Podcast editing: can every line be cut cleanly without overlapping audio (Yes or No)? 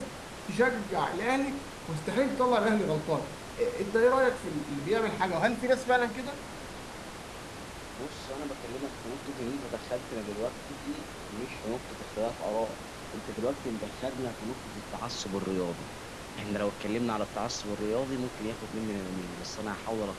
Yes